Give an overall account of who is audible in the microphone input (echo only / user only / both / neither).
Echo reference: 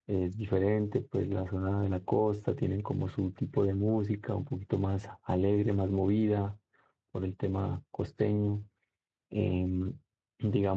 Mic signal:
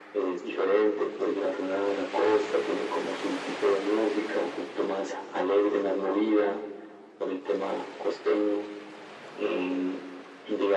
echo only